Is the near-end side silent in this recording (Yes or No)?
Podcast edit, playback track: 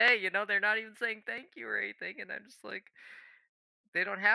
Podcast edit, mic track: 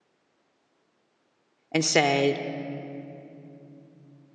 No